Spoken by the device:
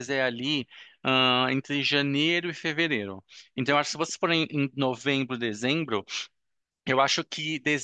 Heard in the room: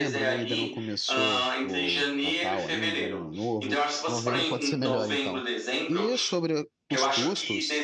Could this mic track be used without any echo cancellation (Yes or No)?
No